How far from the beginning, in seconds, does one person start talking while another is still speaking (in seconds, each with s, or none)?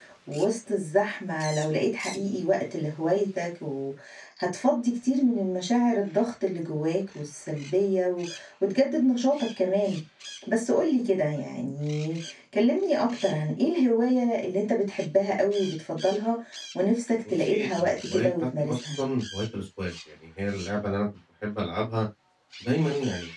17.4 s